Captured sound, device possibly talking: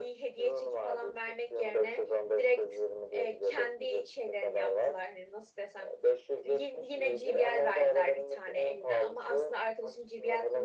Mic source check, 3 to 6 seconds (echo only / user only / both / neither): both